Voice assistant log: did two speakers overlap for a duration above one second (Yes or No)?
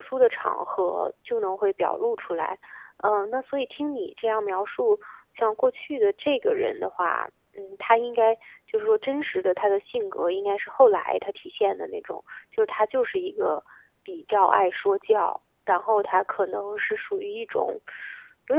No